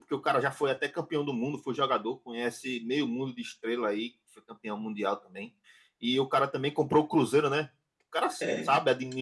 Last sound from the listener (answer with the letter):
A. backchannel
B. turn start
A